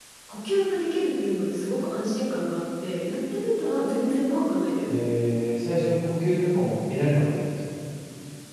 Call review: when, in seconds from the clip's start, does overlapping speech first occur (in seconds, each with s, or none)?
none